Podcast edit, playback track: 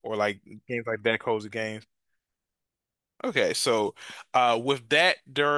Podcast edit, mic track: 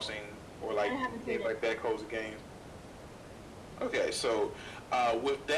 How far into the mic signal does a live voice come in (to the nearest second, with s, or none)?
1 s